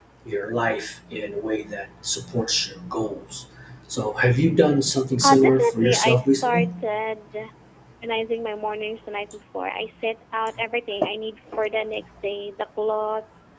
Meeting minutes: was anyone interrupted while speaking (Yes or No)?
Yes